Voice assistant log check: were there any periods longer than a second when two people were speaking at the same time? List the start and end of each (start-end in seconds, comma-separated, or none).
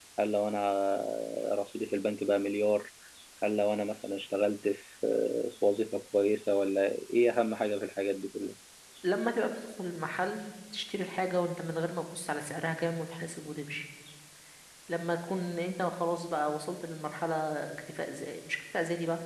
none